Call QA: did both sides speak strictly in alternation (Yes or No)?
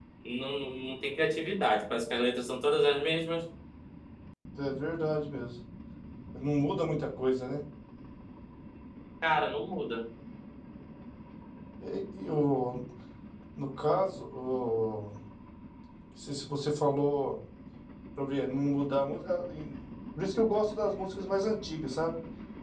Yes